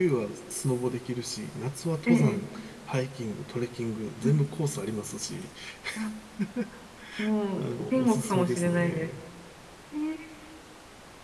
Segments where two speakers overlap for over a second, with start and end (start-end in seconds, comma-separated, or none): 7.6-9.1